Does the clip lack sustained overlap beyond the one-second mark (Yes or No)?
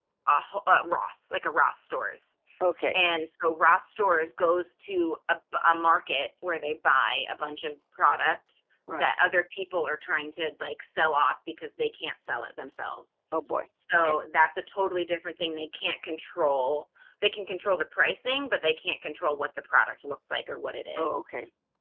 Yes